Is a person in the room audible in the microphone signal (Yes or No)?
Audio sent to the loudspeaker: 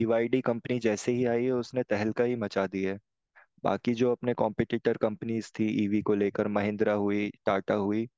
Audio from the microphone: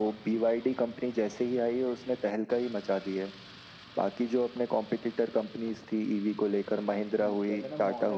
Yes